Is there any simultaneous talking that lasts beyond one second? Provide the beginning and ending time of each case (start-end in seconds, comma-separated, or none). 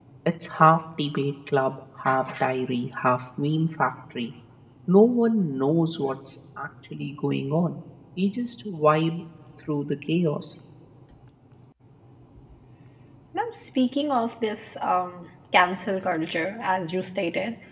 none